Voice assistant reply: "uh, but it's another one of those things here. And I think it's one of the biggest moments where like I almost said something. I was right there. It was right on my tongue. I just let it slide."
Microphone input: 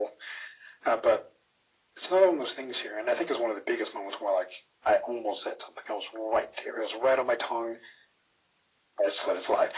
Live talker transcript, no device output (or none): none